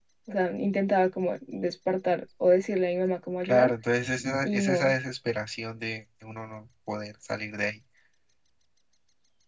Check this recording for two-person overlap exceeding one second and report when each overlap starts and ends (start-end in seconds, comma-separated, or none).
none